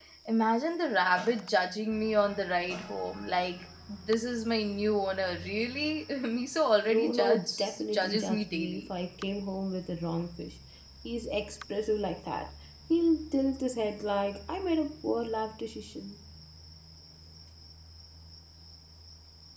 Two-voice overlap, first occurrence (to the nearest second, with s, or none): 7 s